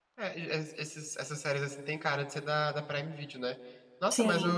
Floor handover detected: No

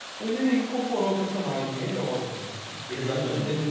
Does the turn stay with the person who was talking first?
Yes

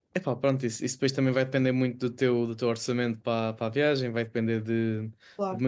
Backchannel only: Yes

